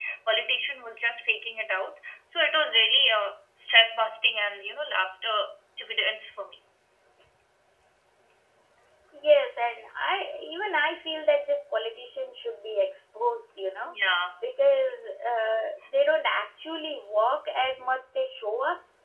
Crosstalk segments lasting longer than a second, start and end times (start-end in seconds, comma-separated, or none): none